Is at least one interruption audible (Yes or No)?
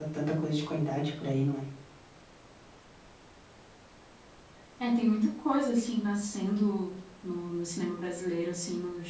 No